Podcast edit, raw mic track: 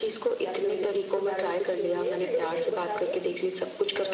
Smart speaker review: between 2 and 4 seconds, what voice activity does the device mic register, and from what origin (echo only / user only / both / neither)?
echo only